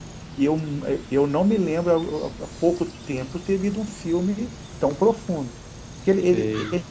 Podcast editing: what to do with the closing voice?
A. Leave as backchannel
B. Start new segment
A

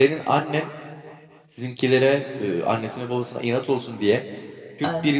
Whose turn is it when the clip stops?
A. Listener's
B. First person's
B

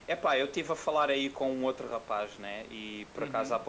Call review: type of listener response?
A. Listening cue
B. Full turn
A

